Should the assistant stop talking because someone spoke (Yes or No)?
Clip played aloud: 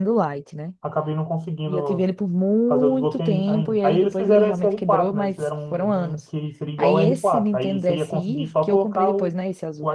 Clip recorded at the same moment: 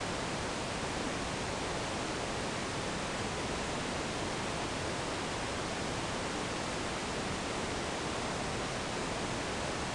No